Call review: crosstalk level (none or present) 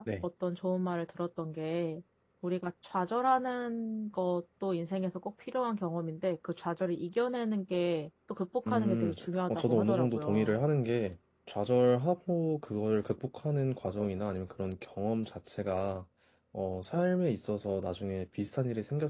present